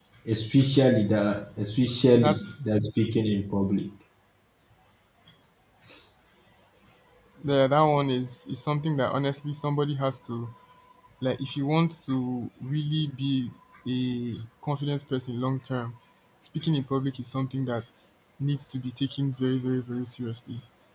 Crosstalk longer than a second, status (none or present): none